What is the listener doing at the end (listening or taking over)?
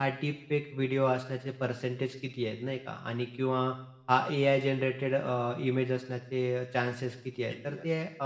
listening